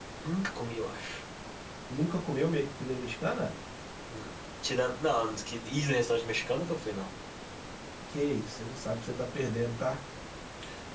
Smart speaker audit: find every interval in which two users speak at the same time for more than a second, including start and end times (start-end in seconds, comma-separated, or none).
none